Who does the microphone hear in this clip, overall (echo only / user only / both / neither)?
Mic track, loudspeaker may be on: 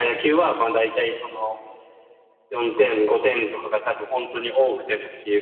echo only